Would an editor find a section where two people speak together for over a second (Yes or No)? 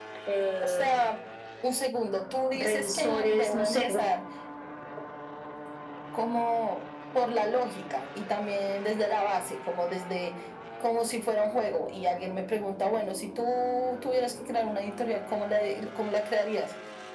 Yes